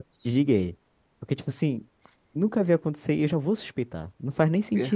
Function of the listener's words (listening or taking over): taking over